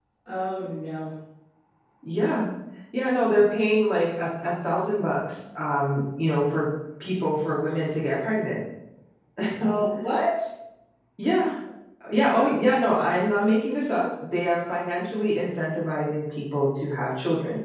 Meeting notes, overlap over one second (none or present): none